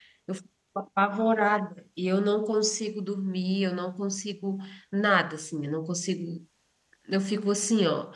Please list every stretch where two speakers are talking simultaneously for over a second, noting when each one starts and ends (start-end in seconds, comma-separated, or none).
none